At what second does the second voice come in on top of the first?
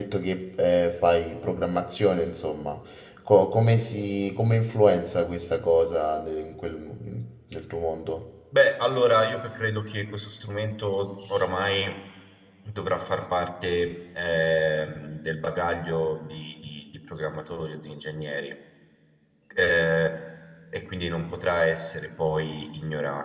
none

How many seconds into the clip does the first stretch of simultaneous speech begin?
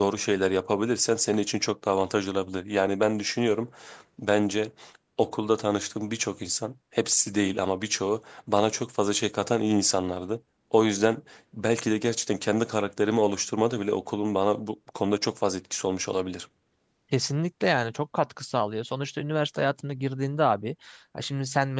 none

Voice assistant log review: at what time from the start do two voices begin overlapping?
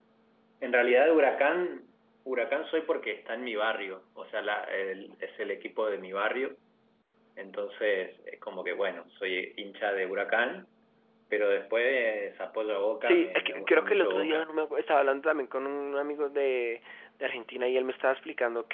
13.0 s

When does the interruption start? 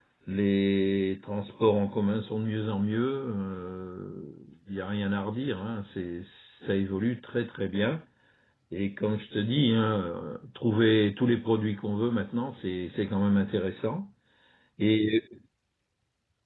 none

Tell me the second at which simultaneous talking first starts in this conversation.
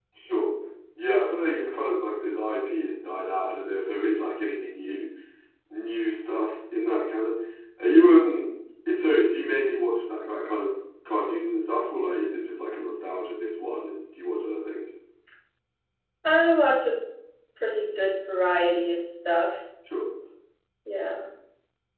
none

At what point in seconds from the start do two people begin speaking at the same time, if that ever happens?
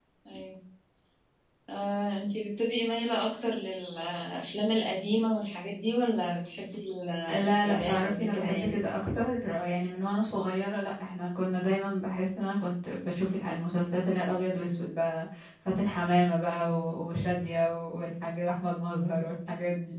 7.3 s

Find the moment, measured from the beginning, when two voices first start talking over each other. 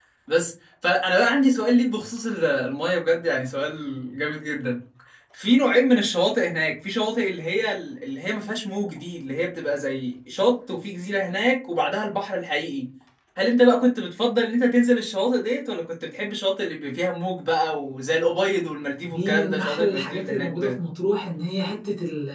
19.0 s

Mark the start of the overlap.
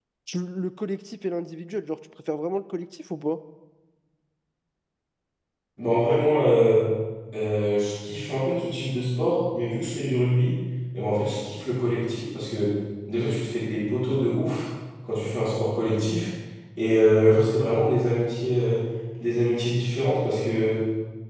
none

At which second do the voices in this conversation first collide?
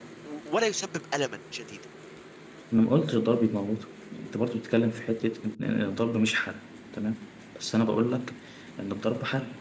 none

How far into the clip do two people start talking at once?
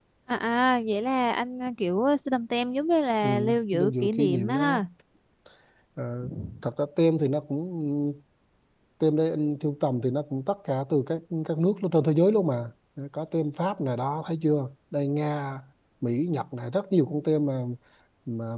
3.2 s

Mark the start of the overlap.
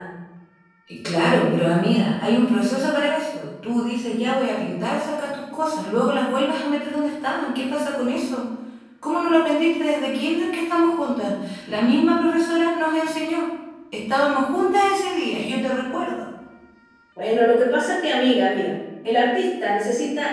none

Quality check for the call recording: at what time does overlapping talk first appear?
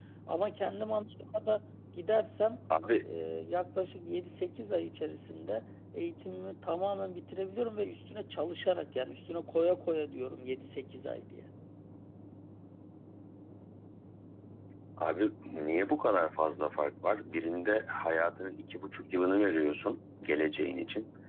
none

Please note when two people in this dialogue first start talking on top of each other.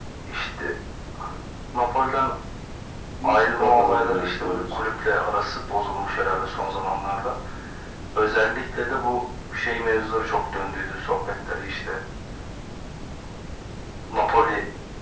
3.2 s

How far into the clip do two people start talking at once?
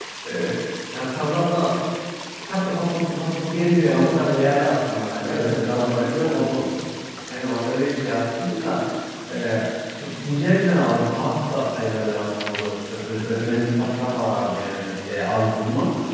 5.2 s

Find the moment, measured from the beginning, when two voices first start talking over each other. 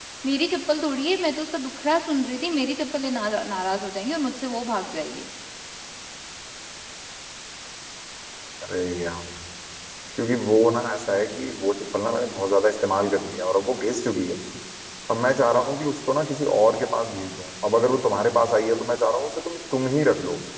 none

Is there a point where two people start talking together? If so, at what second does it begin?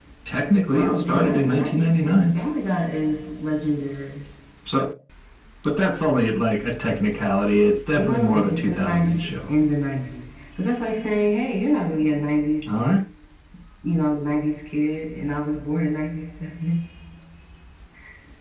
0.7 s

